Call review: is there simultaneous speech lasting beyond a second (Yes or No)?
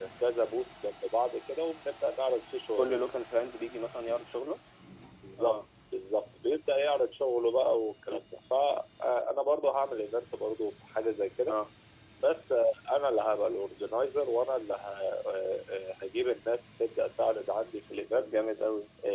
No